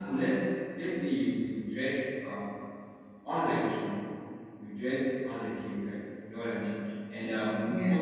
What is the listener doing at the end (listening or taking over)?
listening